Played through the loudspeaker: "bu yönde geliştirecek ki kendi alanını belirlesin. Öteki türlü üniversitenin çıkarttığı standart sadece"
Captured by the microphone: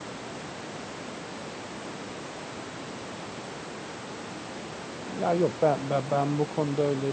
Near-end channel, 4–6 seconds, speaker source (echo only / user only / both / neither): user only